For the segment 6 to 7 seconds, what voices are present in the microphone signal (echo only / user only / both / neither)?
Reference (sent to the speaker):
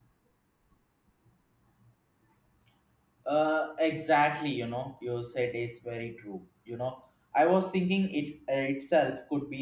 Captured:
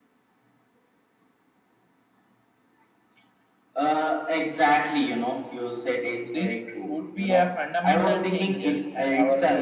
both